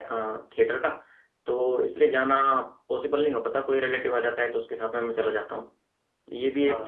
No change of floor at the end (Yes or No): Yes